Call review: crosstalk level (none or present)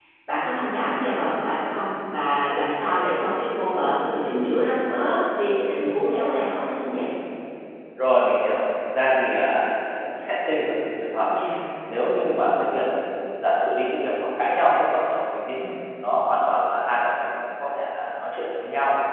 none